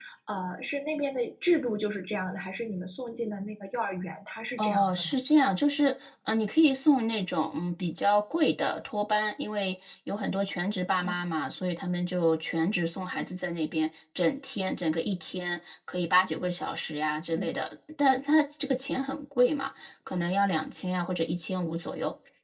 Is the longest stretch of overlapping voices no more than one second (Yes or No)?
Yes